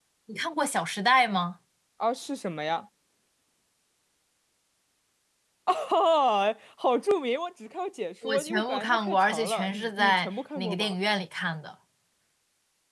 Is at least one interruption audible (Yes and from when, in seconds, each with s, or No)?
Yes, from 8.2 s